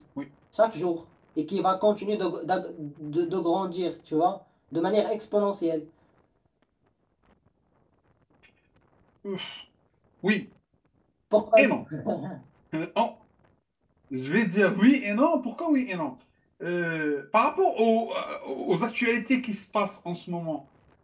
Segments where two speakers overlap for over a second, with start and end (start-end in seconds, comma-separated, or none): none